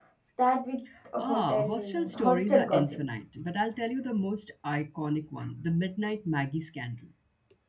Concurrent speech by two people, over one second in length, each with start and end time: 1.2-3.0

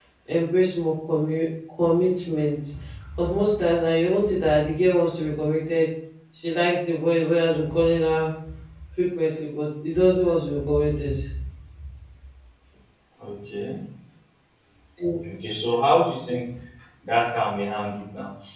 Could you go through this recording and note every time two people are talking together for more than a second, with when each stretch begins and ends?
none

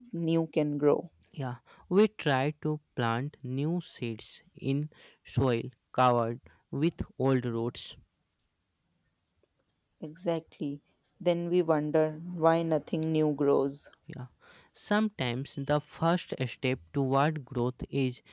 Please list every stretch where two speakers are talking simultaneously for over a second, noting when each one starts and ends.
none

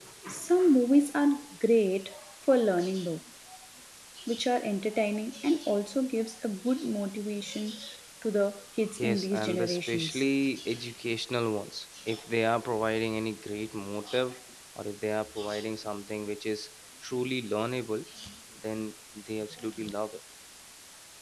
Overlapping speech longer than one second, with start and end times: 9.0-10.2

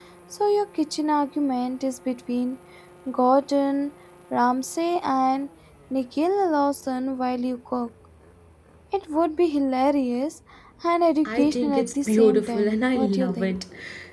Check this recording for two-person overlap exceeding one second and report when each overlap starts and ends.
11.2-13.6

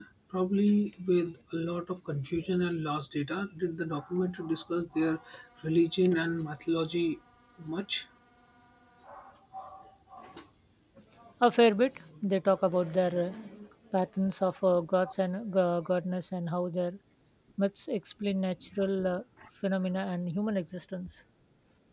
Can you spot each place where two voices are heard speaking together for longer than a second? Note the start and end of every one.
none

